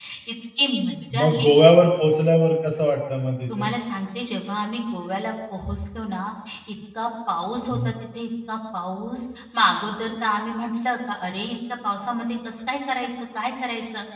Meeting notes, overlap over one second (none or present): none